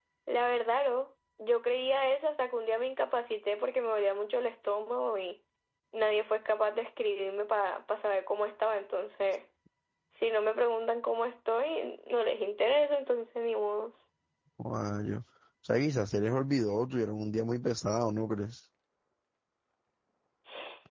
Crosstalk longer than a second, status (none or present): none